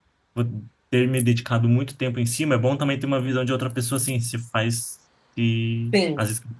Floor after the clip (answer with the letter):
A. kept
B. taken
B